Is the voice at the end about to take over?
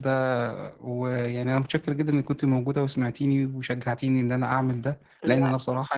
No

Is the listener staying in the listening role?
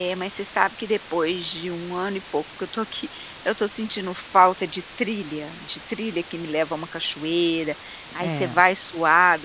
Yes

